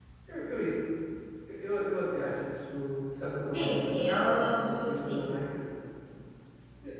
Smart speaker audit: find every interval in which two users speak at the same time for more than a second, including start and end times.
3.5-5.2

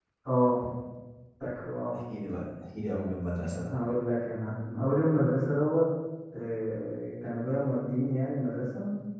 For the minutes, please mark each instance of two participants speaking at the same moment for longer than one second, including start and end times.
none

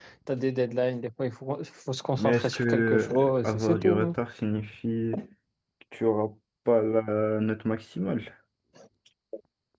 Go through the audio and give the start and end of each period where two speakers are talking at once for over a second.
2.2-4.2

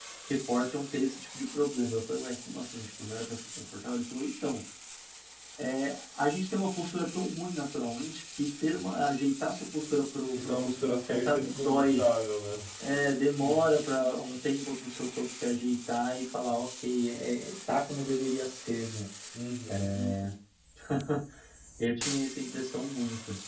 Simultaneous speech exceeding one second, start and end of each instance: 10.3-12.0

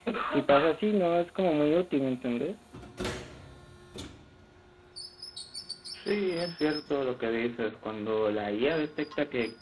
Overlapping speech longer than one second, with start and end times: none

